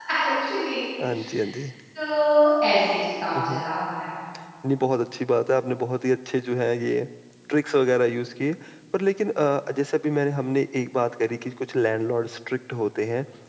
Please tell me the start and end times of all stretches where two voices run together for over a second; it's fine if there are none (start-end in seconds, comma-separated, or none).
none